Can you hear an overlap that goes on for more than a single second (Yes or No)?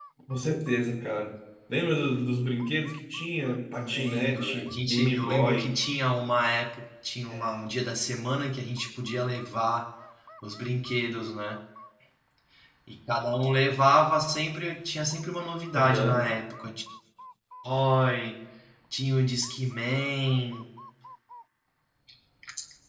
Yes